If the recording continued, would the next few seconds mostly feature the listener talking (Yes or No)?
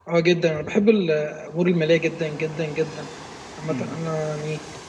No